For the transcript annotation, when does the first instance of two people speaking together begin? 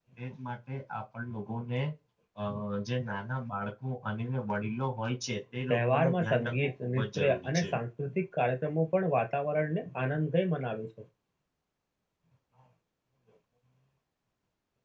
5.7 s

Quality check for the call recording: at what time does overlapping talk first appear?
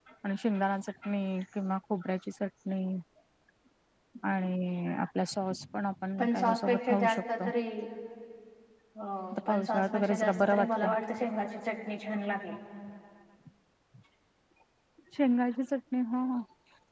6.2 s

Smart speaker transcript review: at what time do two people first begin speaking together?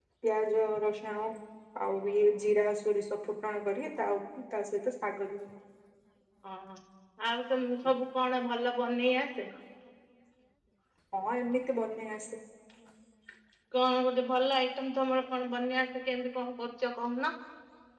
none

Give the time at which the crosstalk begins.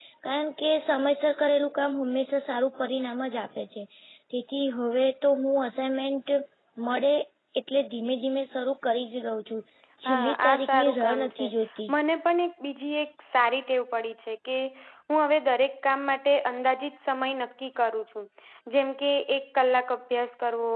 10.1 s

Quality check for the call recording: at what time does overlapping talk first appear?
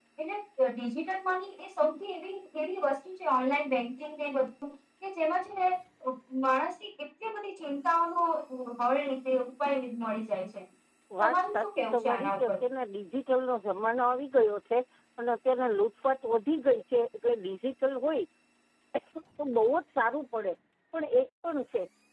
11.2 s

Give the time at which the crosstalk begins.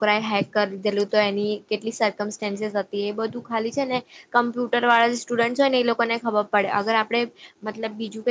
none

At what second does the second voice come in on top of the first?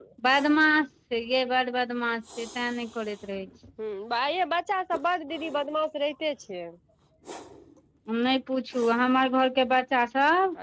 none

